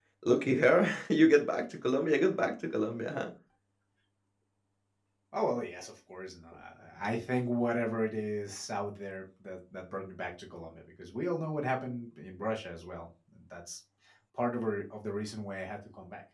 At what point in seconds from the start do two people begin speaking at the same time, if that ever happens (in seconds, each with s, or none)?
none